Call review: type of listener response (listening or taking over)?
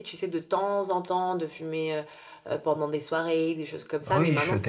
taking over